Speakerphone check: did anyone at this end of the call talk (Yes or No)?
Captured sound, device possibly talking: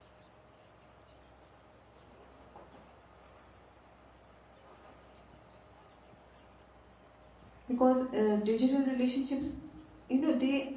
Yes